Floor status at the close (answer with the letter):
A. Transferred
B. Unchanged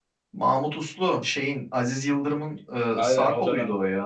A